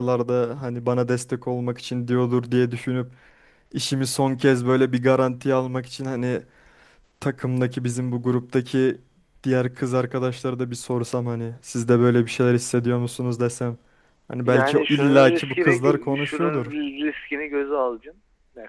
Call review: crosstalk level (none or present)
present